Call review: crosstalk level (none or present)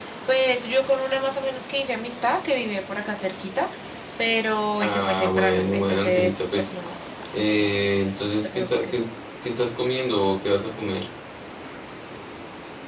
present